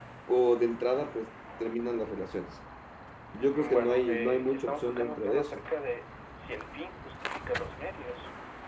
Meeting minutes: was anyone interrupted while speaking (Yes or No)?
Yes